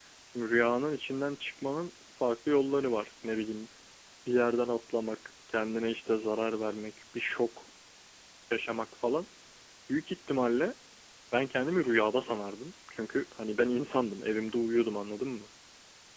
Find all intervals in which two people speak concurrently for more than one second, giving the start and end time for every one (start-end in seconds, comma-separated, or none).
none